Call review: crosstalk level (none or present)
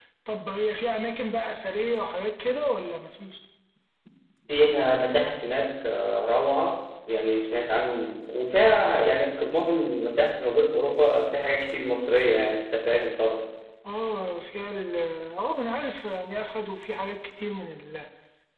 none